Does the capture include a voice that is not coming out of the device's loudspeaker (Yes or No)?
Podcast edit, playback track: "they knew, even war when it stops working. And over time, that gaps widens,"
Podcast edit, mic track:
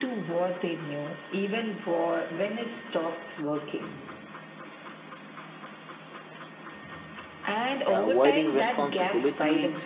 Yes